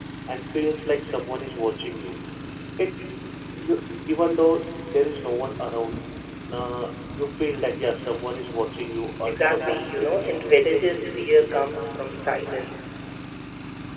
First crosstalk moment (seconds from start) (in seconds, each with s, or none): 9.3 s